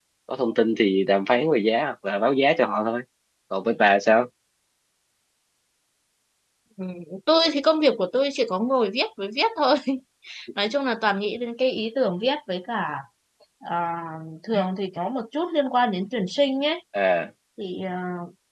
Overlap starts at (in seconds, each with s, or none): none